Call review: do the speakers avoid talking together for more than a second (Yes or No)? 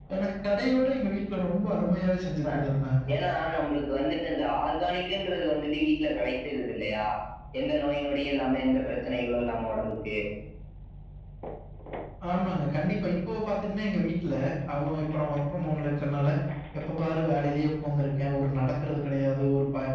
Yes